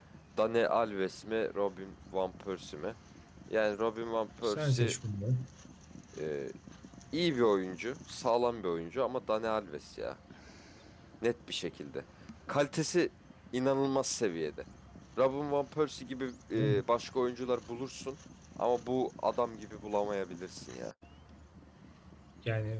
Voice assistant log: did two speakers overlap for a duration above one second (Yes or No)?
No